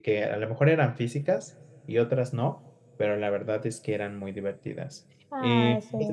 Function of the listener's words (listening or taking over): listening